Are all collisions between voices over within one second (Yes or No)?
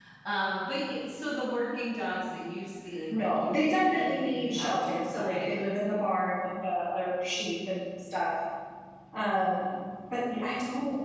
No